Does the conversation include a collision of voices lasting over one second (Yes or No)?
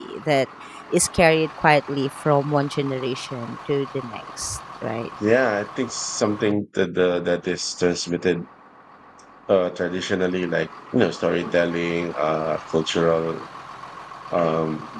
No